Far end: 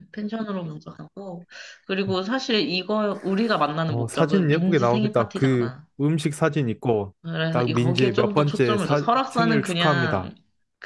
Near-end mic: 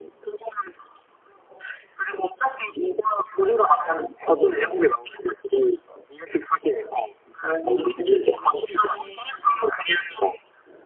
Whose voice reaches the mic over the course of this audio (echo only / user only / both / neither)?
both